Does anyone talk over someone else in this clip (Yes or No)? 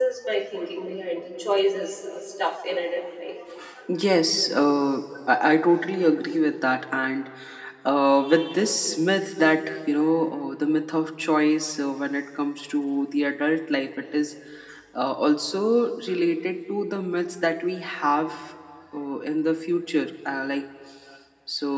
No